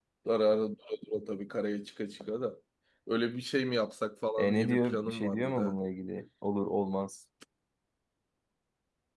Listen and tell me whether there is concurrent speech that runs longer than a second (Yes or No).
Yes